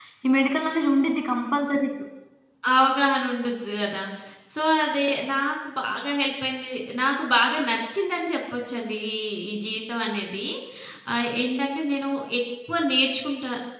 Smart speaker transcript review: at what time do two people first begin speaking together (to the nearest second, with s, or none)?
none